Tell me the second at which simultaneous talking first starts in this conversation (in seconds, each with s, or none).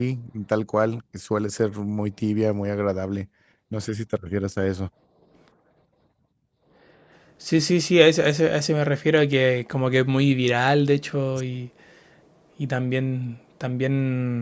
none